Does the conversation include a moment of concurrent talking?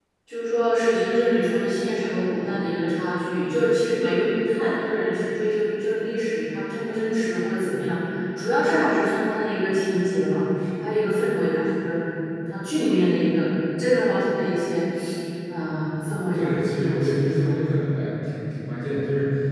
Yes, from 16.3 s

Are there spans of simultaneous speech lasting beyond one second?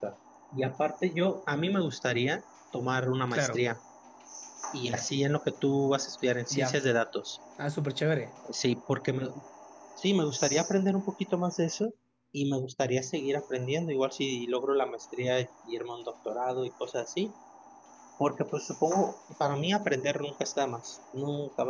No

